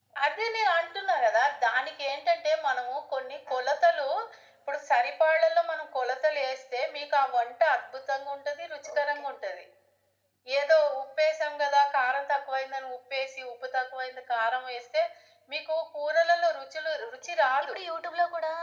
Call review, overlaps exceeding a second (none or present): none